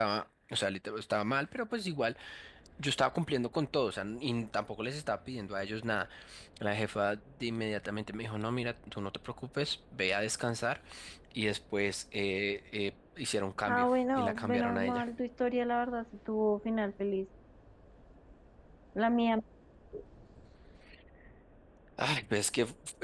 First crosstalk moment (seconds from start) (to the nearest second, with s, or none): 14 s